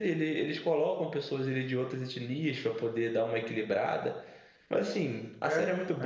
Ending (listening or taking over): listening